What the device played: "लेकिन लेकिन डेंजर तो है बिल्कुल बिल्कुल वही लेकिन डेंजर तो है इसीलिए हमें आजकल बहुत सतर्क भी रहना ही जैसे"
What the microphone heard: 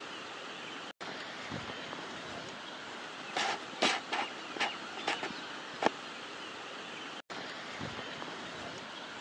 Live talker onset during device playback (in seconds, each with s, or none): none